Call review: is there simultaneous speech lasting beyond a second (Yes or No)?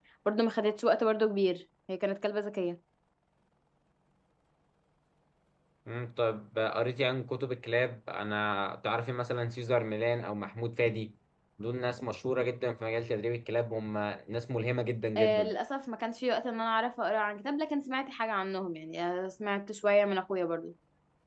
No